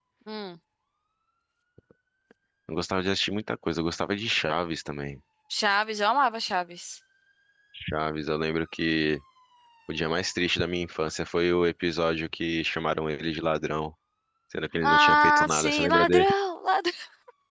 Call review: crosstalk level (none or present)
present